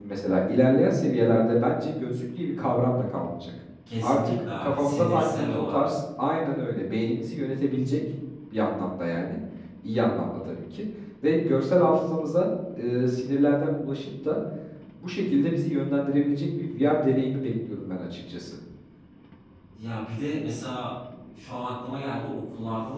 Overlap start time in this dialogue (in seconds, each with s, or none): 3.9 s